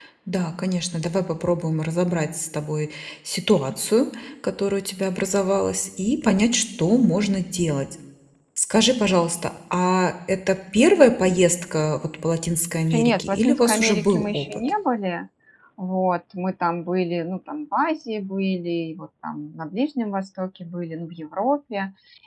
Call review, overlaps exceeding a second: present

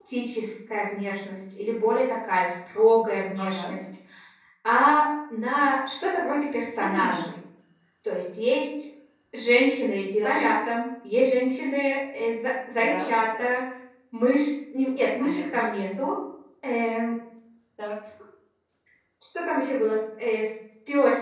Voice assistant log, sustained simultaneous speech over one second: none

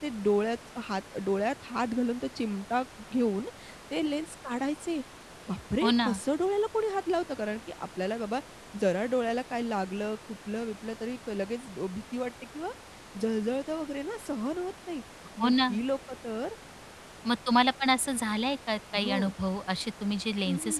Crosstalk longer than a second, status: none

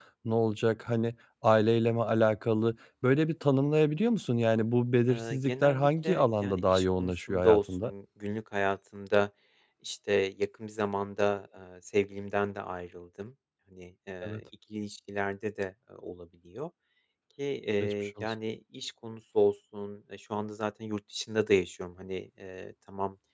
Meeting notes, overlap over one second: present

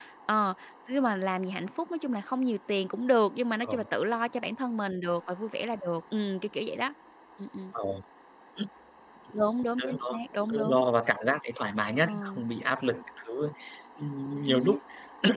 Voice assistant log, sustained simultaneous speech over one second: none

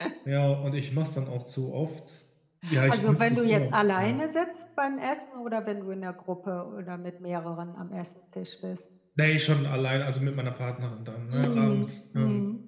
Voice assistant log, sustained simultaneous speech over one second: present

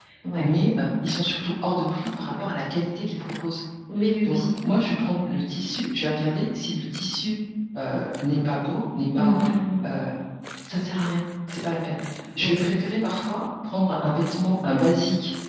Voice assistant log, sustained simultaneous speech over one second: none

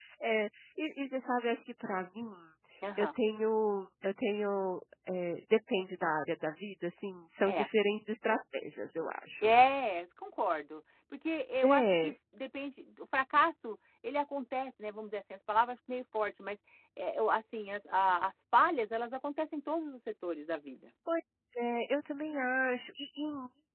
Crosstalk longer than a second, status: none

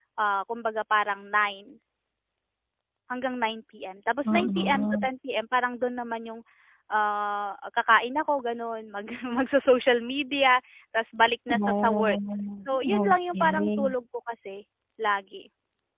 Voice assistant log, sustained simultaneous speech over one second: present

